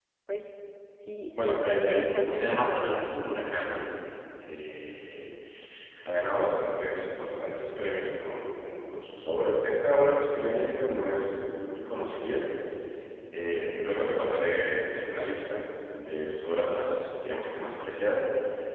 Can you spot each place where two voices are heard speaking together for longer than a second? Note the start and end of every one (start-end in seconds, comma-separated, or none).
1.3-3.0